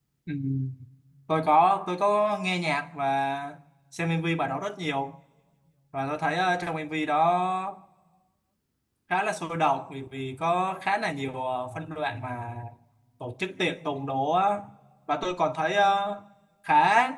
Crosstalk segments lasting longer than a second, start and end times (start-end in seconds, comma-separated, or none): none